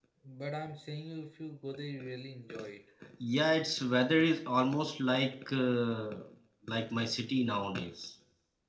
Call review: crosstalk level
none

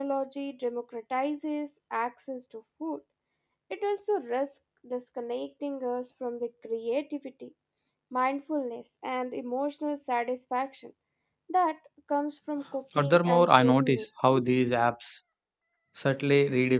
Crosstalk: present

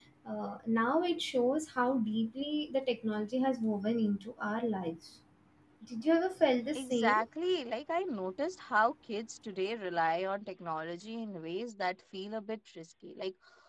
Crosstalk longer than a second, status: none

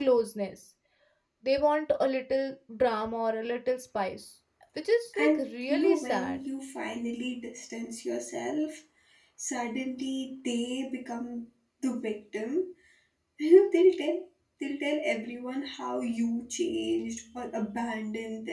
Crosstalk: present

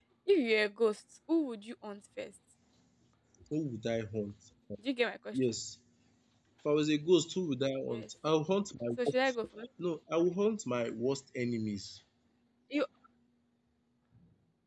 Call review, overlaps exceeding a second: none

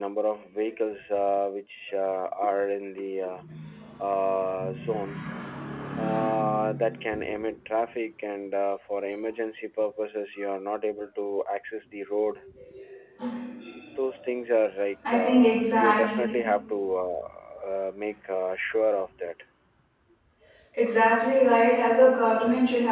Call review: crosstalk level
present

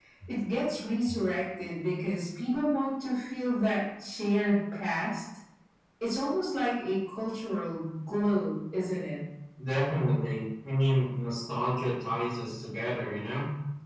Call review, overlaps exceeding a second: none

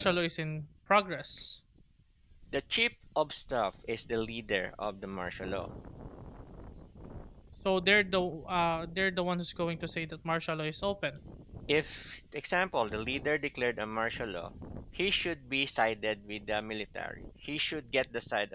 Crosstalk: none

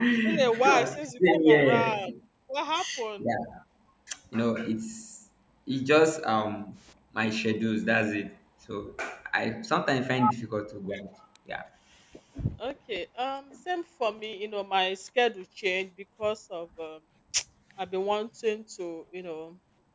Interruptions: present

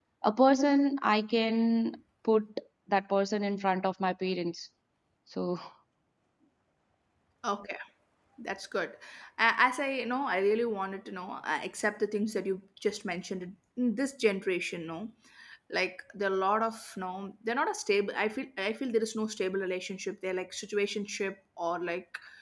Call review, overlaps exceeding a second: none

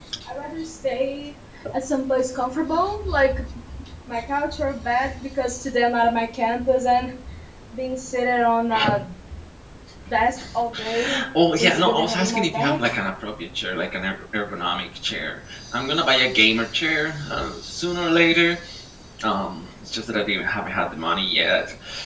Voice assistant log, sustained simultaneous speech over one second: present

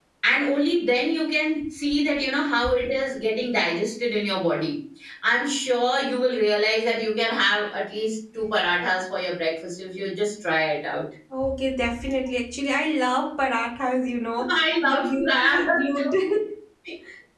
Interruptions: present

